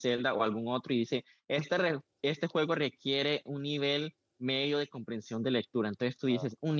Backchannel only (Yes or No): Yes